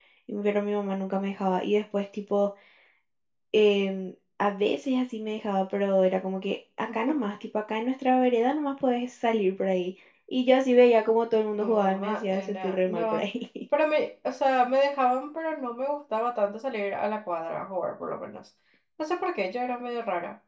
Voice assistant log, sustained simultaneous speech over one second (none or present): present